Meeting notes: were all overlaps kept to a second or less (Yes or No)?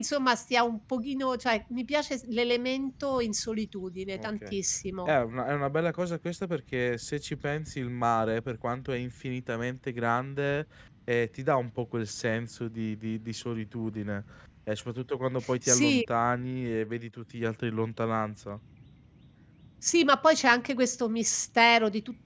Yes